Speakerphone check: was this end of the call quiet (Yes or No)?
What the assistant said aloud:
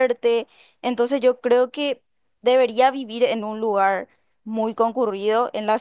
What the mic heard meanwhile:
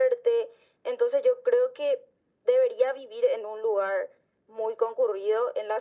Yes